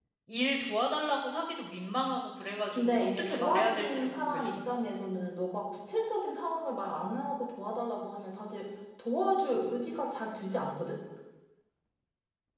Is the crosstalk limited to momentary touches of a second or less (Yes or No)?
No